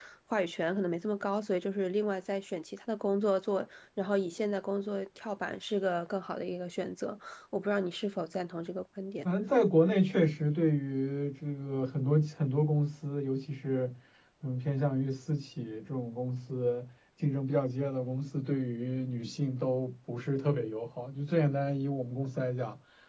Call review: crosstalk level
none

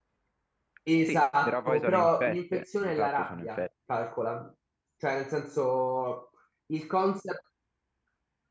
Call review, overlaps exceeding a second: present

